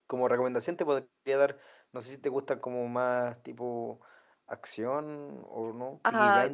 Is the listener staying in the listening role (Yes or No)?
No